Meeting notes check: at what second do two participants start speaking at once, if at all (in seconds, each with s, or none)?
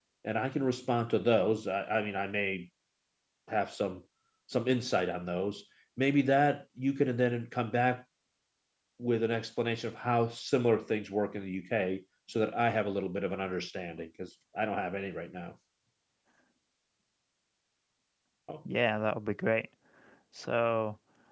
none